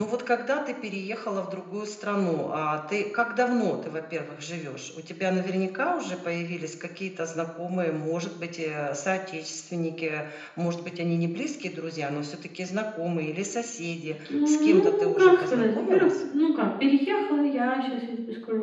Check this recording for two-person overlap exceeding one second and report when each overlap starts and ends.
14.5-16.1

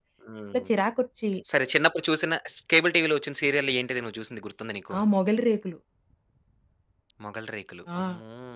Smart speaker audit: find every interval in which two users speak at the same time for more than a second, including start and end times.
none

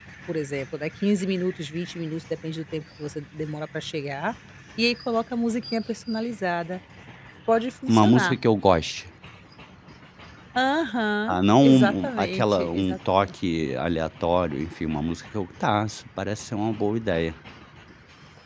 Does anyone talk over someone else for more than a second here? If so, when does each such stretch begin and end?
11.3-13.3

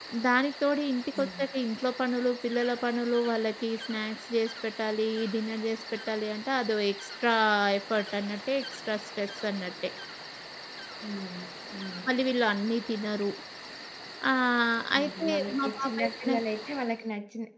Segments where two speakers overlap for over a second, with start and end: 15.0-16.3

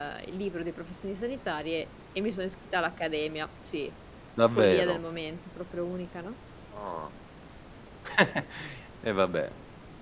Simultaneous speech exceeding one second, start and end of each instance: none

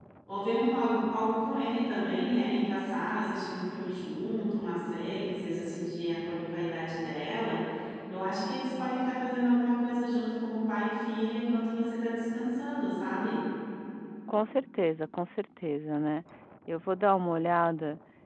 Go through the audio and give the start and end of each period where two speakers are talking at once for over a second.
none

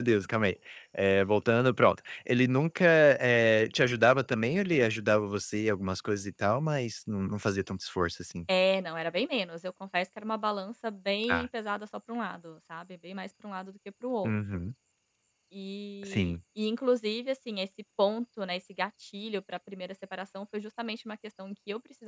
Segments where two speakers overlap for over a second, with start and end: none

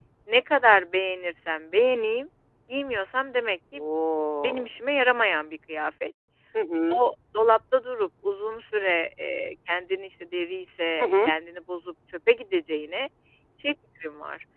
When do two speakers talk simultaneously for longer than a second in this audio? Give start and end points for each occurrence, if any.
none

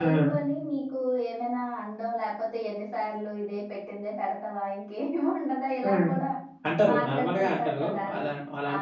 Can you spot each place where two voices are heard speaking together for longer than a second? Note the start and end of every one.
6.9-8.2

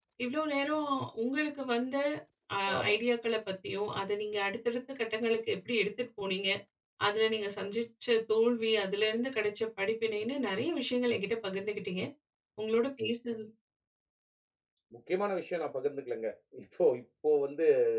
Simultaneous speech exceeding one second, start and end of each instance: none

